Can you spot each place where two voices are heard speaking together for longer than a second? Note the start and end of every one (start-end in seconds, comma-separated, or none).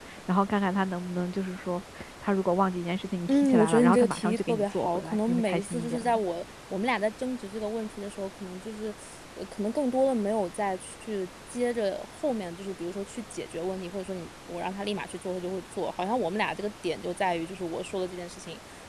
3.3-6.2